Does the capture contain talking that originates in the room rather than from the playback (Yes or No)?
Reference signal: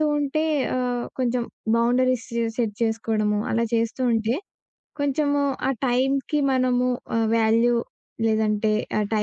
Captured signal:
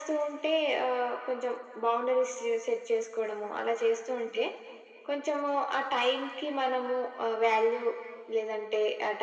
No